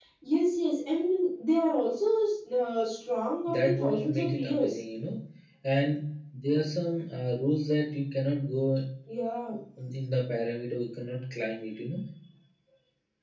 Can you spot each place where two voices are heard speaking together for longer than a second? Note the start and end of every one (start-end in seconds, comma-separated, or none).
3.5-4.8